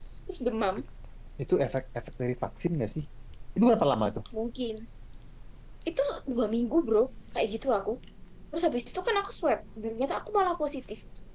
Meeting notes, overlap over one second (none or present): none